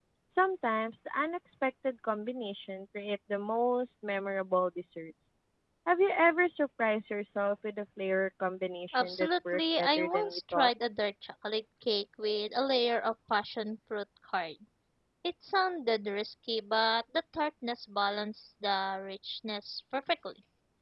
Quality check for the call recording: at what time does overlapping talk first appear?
8.9 s

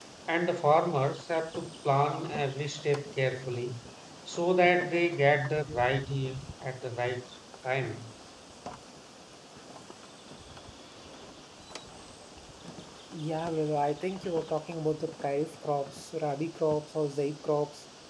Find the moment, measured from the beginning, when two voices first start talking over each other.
none

